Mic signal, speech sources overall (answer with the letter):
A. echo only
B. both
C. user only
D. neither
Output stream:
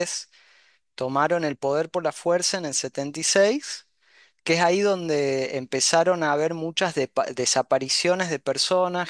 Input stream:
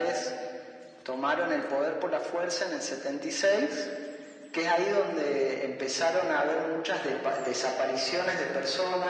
A